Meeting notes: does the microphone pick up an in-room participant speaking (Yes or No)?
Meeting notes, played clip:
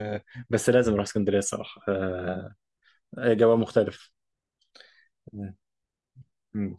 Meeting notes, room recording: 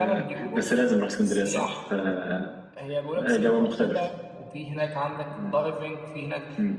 Yes